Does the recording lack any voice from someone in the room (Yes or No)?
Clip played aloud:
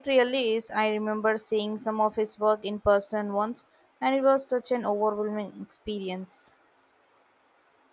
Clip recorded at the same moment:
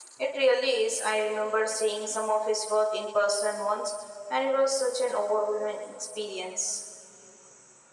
Yes